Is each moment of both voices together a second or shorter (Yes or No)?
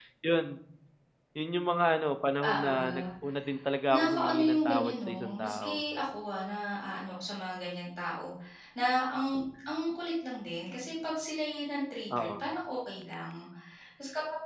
No